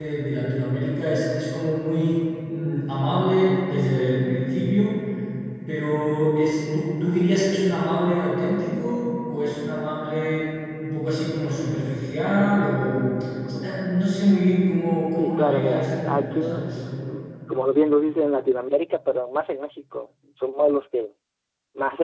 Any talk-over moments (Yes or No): Yes